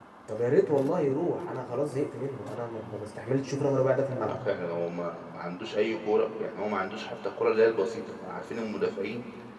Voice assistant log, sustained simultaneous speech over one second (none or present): none